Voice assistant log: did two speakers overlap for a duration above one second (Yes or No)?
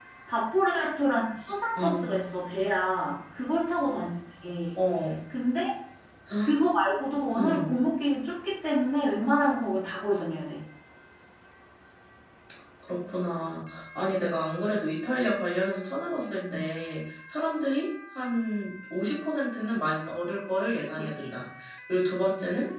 No